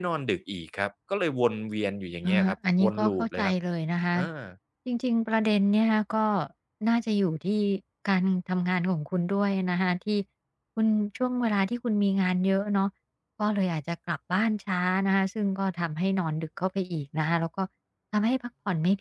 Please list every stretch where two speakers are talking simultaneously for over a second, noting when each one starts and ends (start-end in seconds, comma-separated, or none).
2.2-3.5